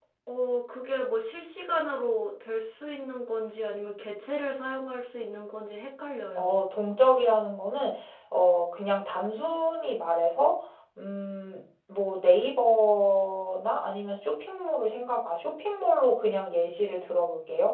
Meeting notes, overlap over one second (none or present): none